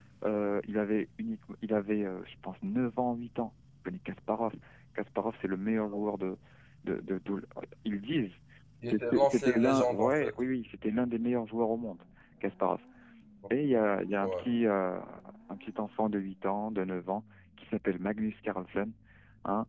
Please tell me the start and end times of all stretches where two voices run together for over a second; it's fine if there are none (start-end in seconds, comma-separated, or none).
8.9-10.3